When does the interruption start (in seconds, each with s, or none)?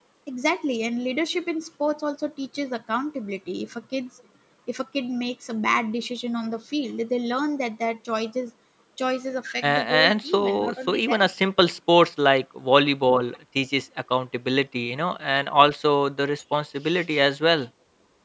9.6 s